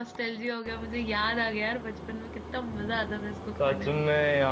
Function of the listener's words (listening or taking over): taking over